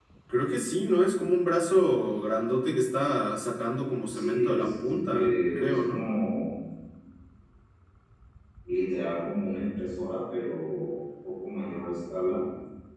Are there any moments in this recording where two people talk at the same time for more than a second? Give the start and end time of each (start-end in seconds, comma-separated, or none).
4.1-6.1